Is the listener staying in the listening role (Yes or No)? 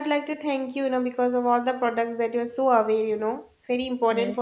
Yes